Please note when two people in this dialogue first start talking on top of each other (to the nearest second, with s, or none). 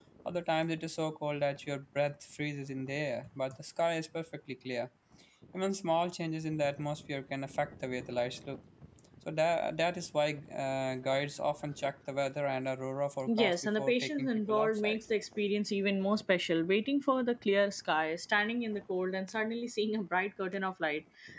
13 s